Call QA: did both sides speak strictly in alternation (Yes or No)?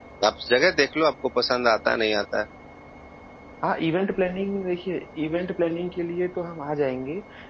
Yes